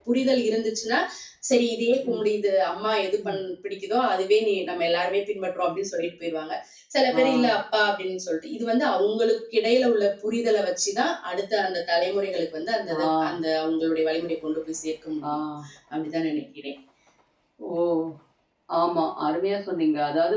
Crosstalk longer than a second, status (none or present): none